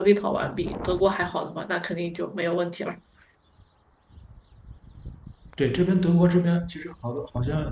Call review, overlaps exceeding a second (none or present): none